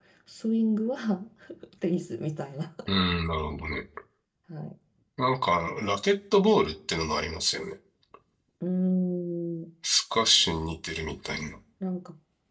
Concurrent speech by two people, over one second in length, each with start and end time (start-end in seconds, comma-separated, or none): none